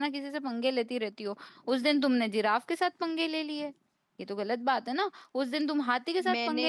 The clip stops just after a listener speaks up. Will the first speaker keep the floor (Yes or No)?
Yes